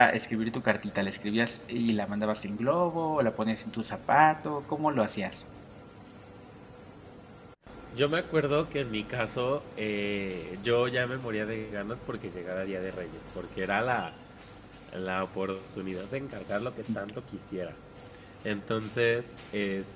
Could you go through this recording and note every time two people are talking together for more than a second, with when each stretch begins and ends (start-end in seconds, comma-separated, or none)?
none